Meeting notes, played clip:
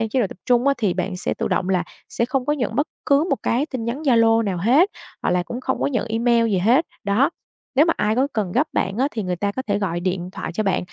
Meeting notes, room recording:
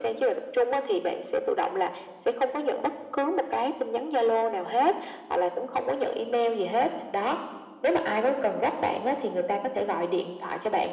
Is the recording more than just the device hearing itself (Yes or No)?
No